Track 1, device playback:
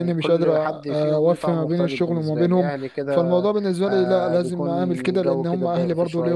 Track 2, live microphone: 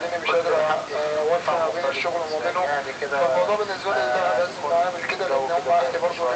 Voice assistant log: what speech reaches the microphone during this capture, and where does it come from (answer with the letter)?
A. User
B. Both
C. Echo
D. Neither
C